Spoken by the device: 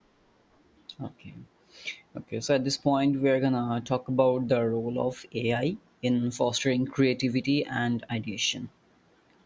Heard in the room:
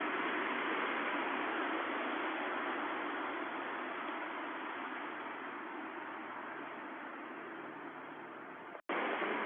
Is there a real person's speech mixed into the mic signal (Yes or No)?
No